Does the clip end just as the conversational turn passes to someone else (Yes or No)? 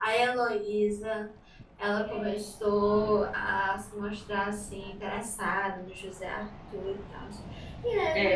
Yes